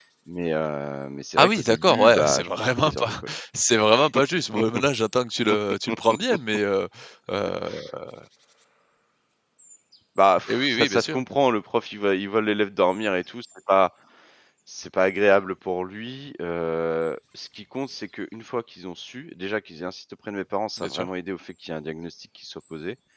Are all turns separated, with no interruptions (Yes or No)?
No